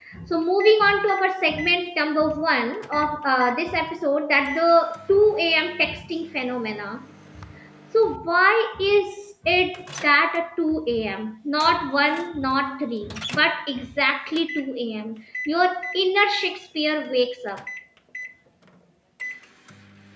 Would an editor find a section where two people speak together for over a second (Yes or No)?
No